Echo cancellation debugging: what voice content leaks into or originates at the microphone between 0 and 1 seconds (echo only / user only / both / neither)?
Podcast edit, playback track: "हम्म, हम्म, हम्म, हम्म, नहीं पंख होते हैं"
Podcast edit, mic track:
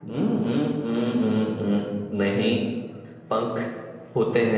echo only